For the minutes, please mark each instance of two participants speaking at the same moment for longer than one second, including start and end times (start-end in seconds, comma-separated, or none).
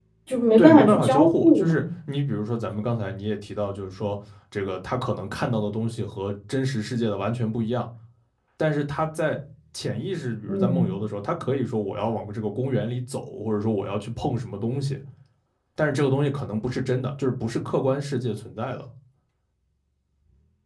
0.6-1.8